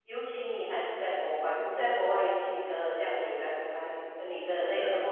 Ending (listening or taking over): listening